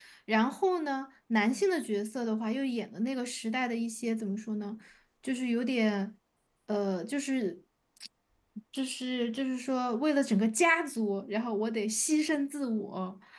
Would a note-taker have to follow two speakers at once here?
No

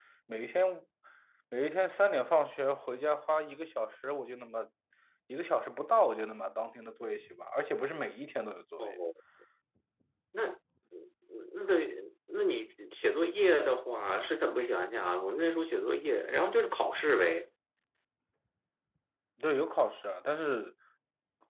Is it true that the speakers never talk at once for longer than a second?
Yes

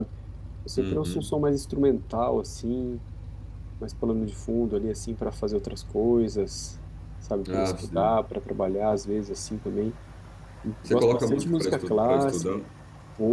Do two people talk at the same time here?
Yes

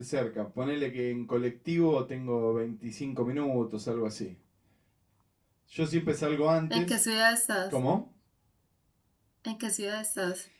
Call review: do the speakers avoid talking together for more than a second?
Yes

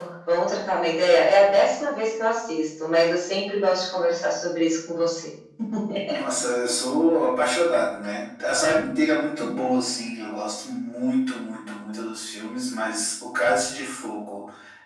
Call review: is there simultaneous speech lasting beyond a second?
No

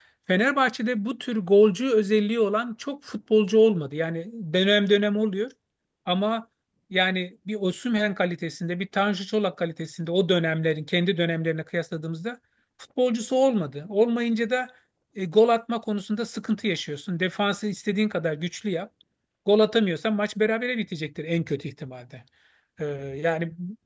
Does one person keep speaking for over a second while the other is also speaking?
No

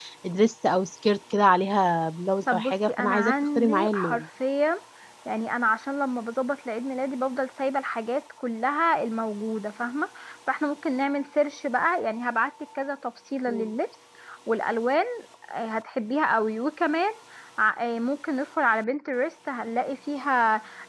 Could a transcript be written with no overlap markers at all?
No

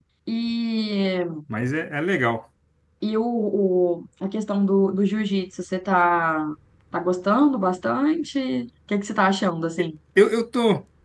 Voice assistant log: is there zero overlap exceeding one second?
Yes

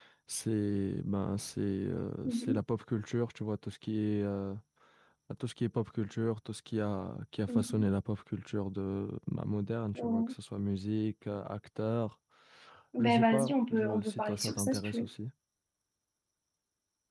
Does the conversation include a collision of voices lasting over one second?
Yes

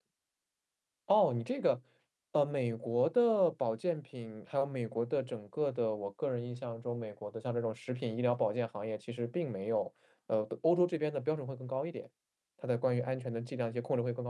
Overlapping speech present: No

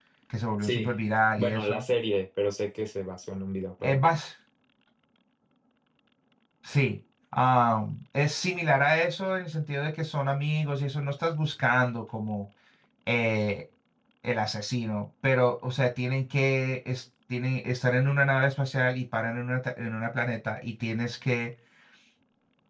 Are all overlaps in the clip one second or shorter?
Yes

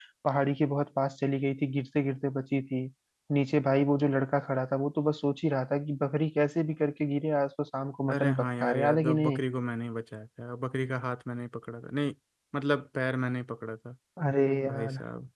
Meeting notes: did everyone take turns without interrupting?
No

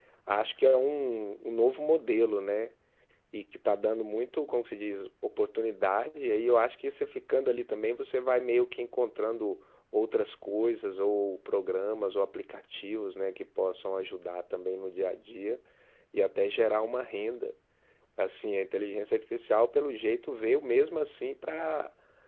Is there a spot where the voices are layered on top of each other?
No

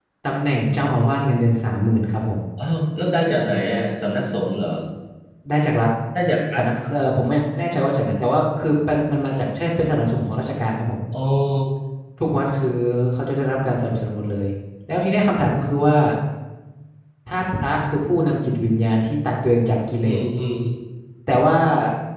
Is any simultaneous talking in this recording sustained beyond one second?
No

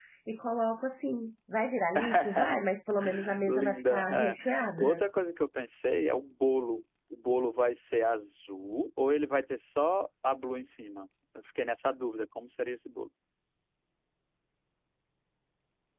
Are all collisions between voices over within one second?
No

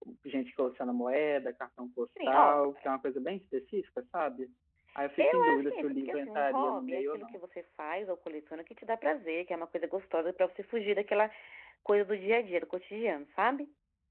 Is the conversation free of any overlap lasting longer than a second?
No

